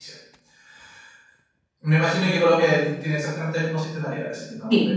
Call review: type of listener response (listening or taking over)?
taking over